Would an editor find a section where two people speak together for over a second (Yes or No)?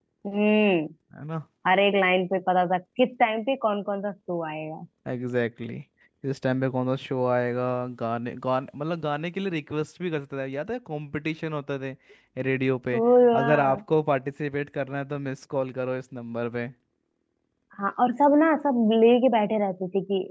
No